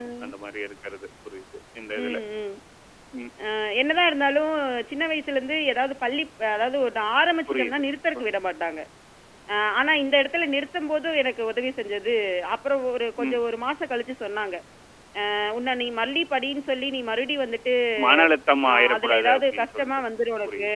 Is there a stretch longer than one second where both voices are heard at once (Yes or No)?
Yes